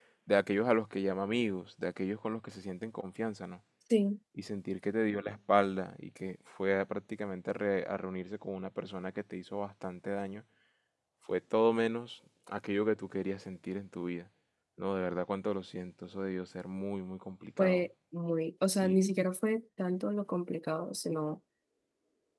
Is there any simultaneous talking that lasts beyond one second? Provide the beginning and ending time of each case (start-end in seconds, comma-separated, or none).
none